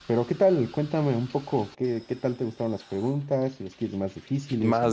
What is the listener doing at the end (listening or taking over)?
taking over